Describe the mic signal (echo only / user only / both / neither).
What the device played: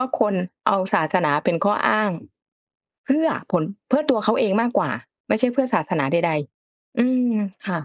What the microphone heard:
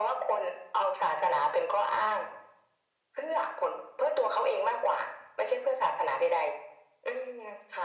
echo only